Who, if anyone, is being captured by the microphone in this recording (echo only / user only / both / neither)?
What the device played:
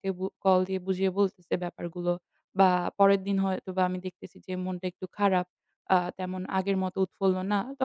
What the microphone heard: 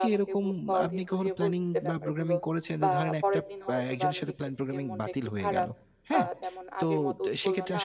both